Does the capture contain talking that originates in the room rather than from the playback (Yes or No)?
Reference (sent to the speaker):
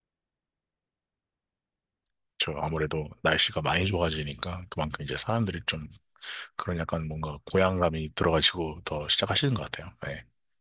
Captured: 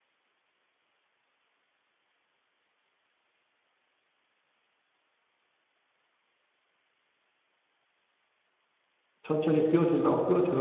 Yes